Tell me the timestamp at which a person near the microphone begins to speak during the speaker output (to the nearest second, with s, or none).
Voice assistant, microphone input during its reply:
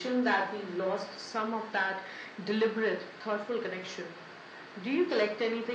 none